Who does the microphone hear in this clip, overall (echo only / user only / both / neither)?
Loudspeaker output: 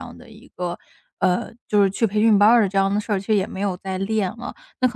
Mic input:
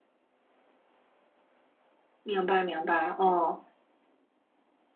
user only